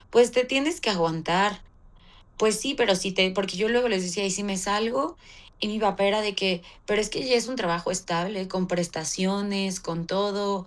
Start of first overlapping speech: none

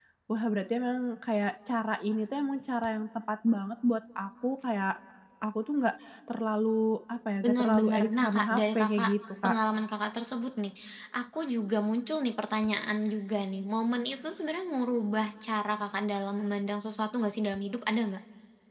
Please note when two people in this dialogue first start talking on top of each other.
7.4 s

